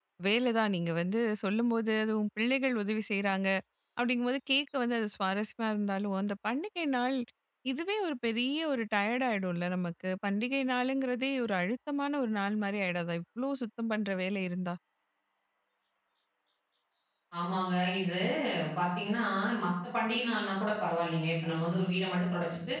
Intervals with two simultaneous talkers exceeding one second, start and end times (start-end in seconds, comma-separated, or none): none